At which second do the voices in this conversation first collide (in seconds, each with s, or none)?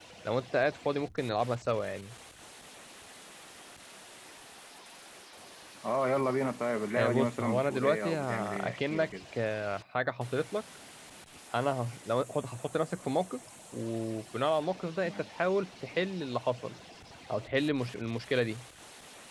7.0 s